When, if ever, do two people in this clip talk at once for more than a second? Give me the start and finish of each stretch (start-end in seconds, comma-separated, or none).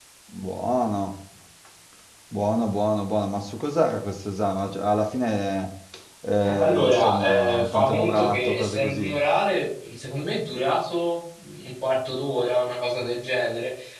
6.6-9.1